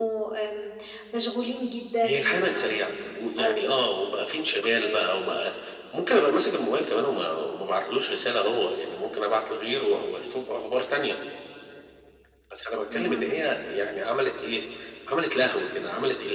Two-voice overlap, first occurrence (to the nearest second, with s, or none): 2 s